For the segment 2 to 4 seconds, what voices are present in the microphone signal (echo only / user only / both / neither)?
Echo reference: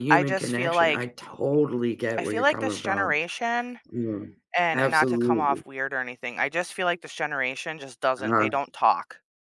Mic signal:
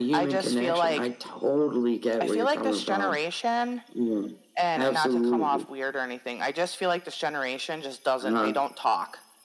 echo only